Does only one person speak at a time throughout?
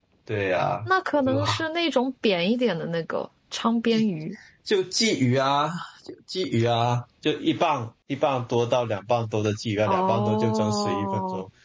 No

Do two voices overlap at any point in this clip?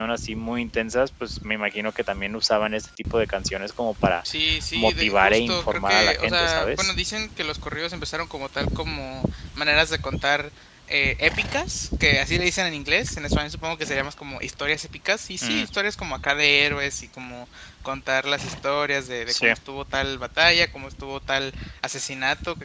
Yes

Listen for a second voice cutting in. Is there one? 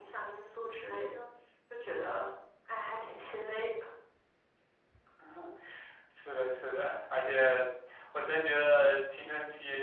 No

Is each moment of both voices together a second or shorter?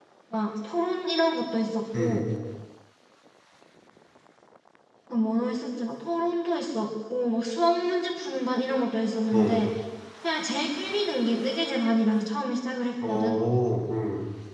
Yes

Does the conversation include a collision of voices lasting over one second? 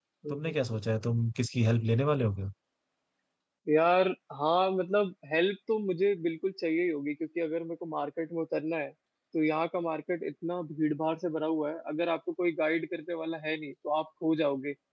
No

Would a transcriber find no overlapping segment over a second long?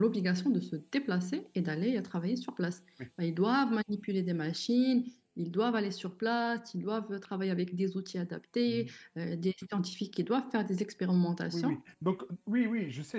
Yes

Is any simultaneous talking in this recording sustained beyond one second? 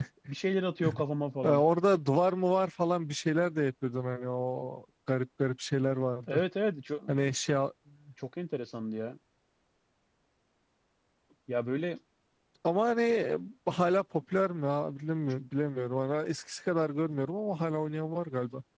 No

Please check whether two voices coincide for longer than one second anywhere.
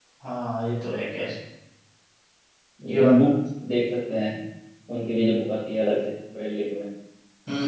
No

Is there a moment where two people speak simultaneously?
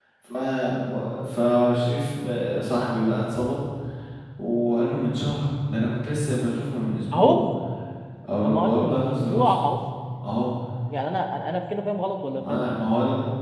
Yes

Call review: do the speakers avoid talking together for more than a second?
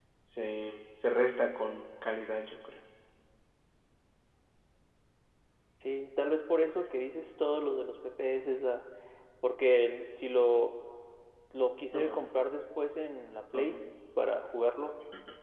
Yes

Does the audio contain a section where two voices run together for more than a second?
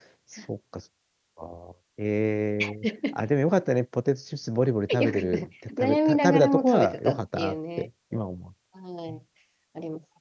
Yes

